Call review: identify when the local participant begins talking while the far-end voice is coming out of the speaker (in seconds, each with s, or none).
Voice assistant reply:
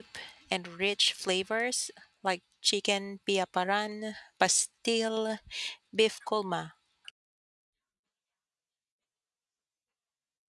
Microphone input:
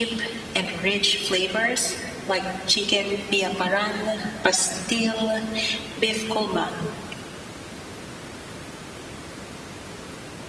none